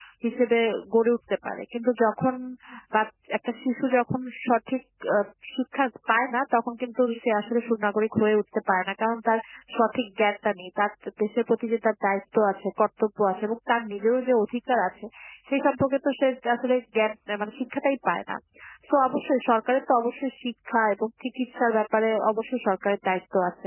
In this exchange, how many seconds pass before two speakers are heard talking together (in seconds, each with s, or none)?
none